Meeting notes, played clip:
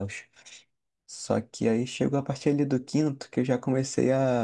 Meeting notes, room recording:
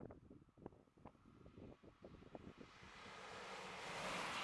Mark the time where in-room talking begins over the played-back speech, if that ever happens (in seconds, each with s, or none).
none